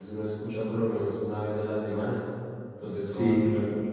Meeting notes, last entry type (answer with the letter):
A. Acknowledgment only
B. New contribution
B